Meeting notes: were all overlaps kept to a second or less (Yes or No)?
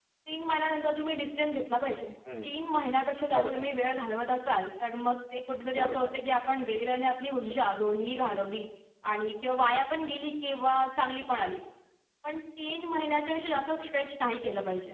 Yes